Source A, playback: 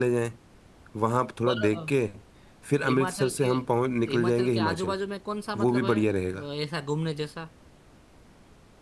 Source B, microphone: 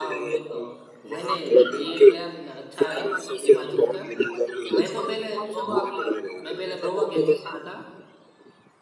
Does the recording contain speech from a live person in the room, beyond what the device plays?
Yes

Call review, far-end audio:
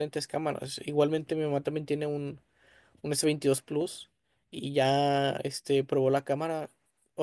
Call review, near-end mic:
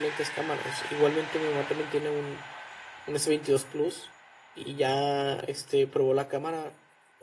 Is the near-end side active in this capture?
No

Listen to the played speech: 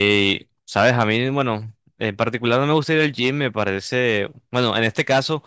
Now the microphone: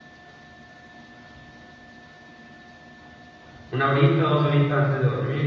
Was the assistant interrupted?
Yes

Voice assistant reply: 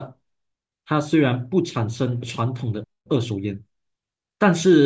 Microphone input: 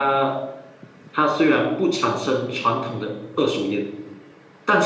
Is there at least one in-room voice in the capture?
No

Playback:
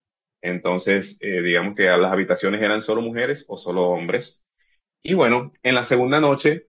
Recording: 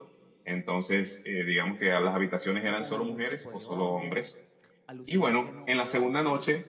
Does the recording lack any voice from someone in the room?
No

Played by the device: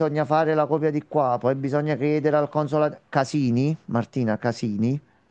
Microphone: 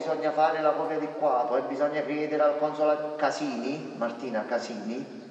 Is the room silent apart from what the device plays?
Yes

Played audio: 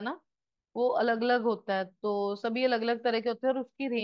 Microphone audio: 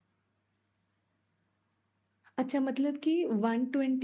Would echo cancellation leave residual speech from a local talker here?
Yes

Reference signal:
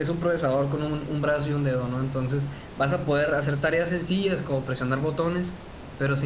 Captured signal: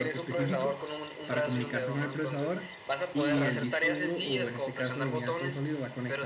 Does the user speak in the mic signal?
Yes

